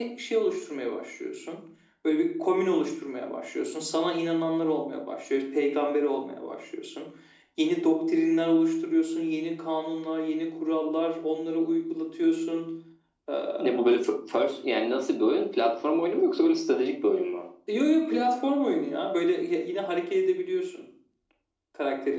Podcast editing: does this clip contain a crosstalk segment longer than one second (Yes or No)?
No